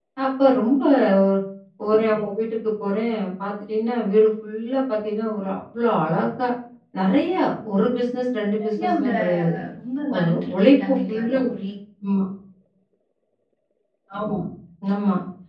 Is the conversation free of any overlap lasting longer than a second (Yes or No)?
No